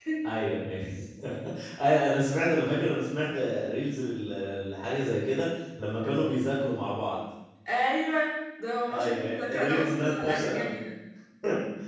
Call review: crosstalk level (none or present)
present